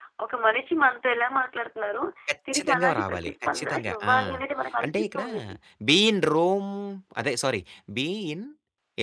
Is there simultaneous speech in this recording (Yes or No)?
Yes